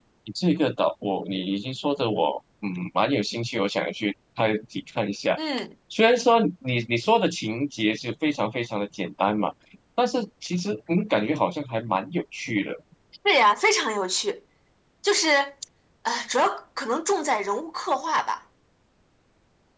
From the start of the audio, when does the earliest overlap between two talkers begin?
none

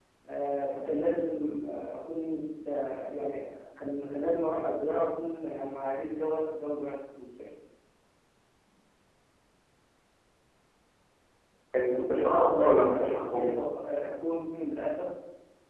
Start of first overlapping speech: 12.1 s

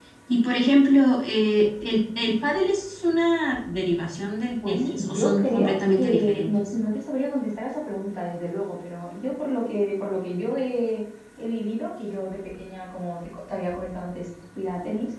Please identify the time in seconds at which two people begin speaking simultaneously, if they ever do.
4.6 s

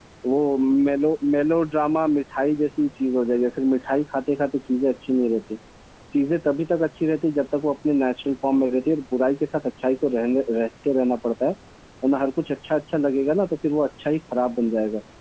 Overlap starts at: none

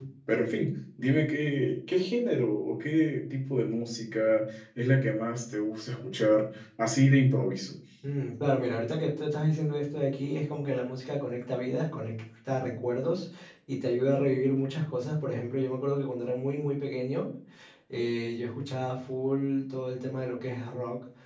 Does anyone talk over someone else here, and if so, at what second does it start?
none

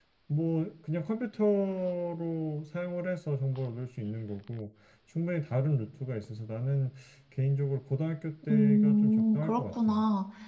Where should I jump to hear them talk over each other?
8.4 s

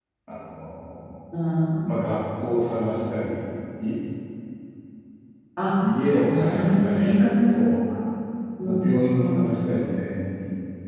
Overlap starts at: 6.3 s

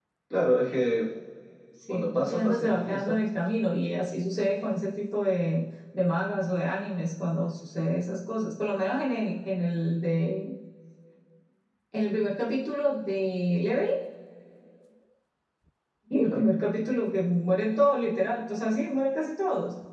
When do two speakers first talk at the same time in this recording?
1.9 s

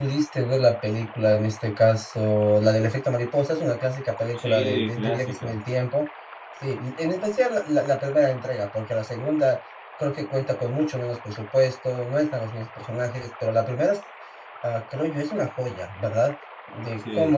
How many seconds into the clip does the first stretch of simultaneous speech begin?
4.4 s

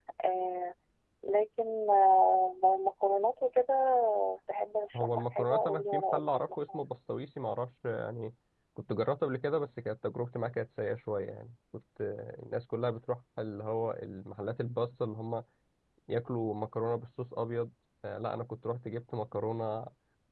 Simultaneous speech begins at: 5.0 s

